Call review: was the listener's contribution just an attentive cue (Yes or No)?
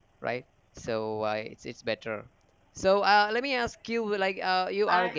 Yes